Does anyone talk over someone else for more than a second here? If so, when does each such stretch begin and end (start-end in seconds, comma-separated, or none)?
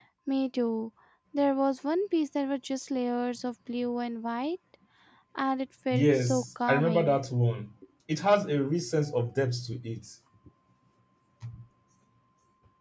5.9-7.2